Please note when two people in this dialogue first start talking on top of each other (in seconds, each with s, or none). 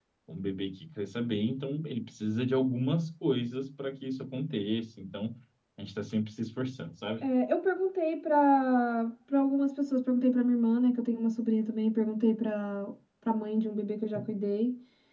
none